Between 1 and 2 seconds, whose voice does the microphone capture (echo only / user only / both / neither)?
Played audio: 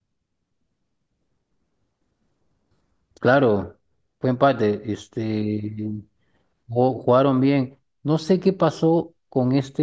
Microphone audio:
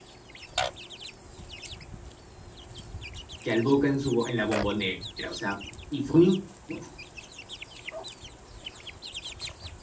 neither